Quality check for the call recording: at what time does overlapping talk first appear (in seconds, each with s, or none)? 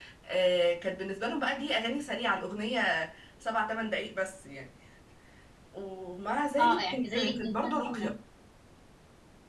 6.6 s